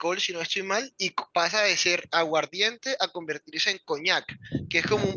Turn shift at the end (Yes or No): No